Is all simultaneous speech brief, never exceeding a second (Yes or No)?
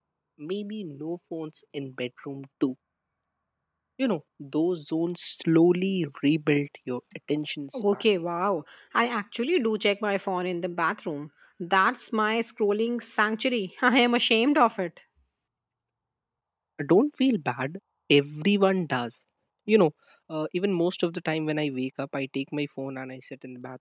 Yes